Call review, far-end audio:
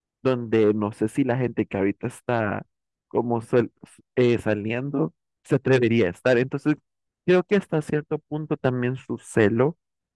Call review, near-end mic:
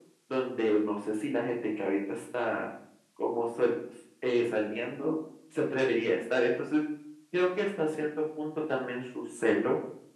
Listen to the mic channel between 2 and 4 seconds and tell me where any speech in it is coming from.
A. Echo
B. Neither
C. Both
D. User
A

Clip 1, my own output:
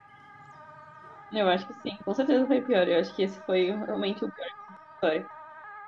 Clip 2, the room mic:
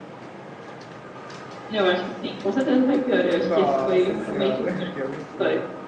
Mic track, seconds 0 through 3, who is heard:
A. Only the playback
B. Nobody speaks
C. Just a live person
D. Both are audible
A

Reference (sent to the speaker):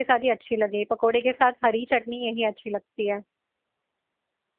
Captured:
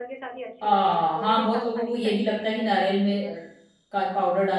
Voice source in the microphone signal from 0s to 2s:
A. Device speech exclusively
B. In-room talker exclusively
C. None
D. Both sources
D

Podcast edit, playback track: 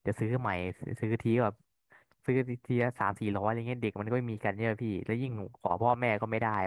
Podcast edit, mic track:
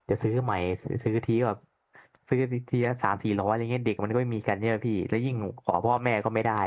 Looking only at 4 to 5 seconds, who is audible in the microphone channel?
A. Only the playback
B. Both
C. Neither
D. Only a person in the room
A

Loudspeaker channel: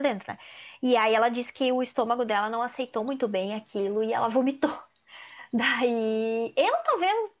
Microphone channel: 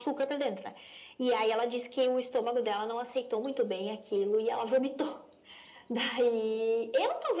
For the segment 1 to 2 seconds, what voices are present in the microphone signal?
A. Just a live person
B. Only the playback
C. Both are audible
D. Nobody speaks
B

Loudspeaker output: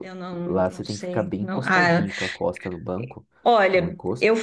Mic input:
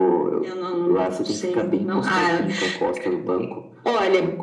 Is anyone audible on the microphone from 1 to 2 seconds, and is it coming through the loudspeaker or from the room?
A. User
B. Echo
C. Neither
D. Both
B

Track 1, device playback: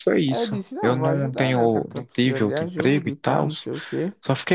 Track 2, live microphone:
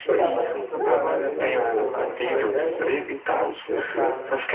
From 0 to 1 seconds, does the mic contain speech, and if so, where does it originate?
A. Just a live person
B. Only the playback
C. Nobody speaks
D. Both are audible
D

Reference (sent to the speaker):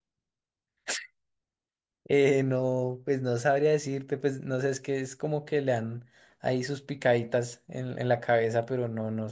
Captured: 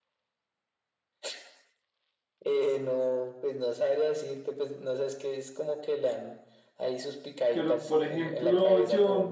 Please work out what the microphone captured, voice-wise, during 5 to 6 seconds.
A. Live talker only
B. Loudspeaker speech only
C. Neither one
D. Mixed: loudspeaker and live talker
B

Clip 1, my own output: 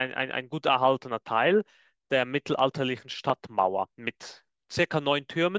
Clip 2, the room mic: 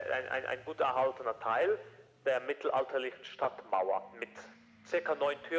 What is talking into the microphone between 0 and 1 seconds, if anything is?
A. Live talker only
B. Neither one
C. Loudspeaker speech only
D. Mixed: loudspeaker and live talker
C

